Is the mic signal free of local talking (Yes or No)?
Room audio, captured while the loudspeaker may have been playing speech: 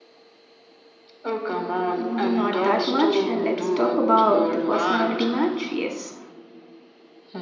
No